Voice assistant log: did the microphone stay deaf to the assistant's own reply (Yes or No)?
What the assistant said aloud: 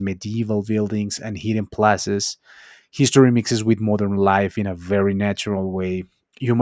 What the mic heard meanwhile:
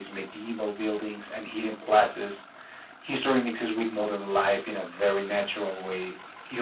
No